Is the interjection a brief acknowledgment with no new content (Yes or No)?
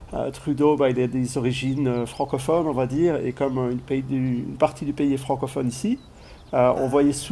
Yes